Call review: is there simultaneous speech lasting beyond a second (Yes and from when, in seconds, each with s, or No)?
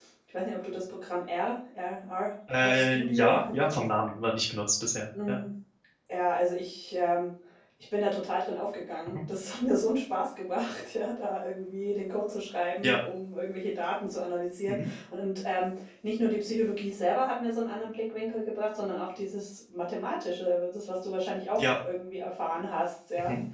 Yes, from 2.5 s